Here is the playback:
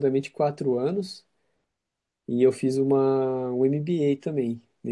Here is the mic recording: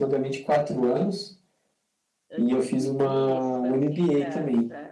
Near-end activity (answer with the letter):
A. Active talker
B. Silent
A